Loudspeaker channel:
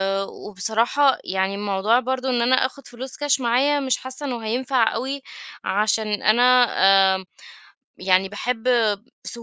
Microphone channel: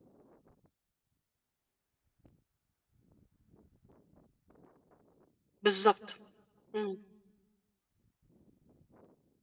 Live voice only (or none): بالضبط. إمم.